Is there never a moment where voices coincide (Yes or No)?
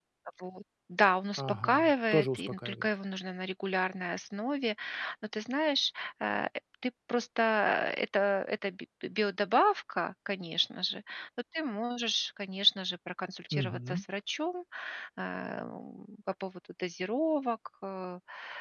No